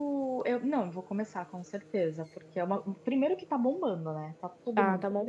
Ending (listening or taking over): taking over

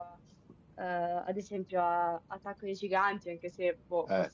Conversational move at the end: taking over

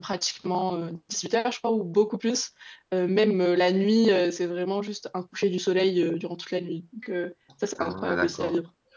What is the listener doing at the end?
taking over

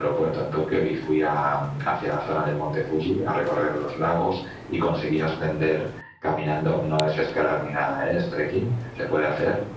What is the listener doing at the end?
listening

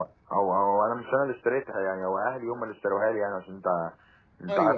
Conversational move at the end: listening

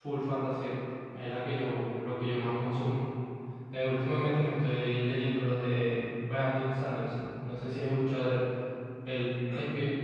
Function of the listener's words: listening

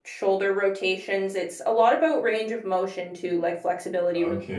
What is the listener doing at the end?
taking over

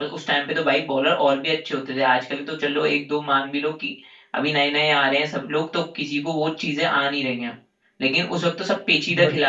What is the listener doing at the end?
listening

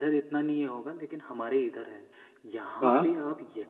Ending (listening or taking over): listening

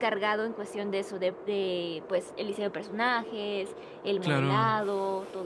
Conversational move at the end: listening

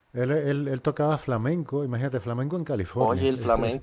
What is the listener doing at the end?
taking over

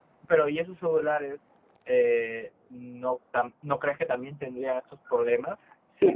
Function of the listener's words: taking over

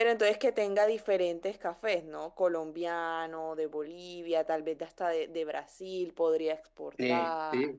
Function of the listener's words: taking over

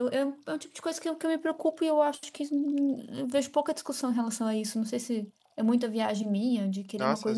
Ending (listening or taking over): listening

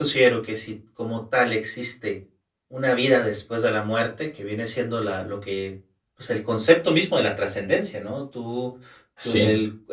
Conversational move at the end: listening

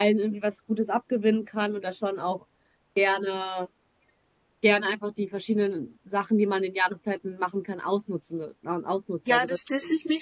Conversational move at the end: taking over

